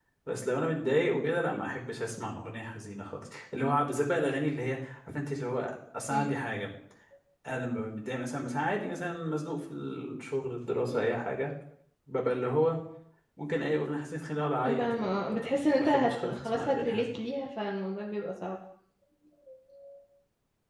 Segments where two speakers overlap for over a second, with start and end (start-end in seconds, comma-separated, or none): 14.6-17.1